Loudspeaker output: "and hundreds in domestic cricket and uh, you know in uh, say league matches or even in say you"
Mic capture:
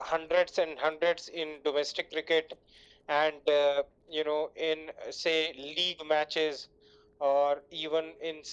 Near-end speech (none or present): none